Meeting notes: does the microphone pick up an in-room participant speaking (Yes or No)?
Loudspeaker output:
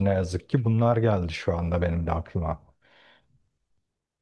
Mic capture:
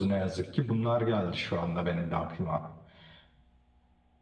No